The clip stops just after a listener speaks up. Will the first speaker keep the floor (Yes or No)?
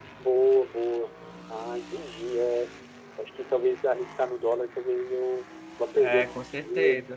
No